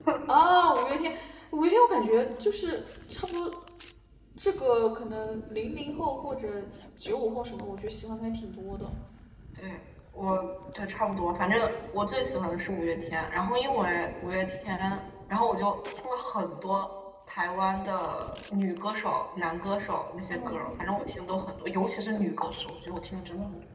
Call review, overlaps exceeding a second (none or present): none